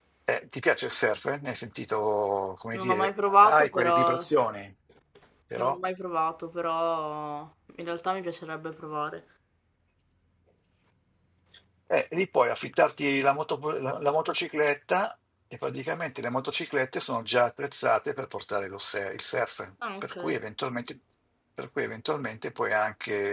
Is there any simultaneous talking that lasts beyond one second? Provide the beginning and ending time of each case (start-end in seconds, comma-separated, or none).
2.8-4.3